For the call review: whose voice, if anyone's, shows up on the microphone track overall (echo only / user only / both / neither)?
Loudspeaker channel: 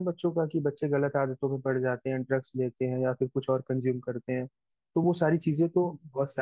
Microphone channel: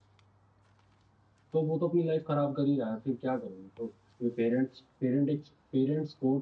user only